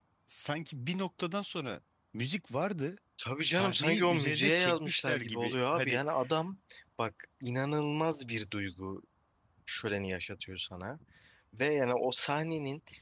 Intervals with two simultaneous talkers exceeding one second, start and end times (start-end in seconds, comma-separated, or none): 3.4-6.0